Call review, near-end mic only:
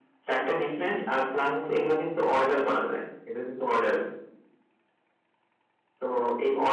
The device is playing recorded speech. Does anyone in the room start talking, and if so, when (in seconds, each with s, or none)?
none